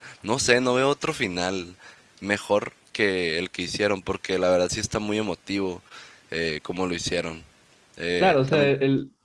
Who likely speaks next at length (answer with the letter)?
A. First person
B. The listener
B